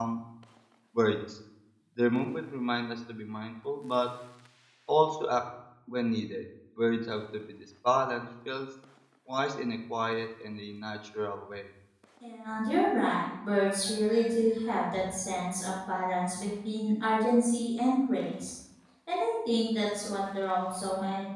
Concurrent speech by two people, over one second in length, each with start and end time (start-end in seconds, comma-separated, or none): none